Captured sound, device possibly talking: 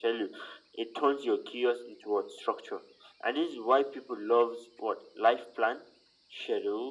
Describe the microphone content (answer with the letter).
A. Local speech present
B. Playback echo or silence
B